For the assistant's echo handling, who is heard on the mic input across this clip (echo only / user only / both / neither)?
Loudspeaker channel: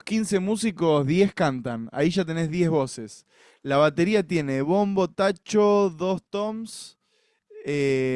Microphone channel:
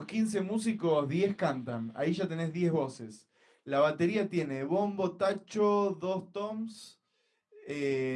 echo only